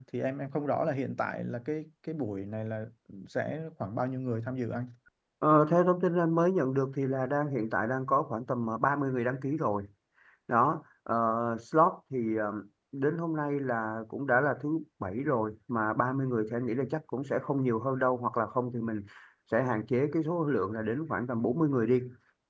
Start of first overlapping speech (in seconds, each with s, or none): none